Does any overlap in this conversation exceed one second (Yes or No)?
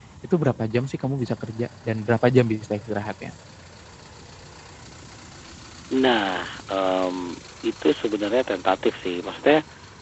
No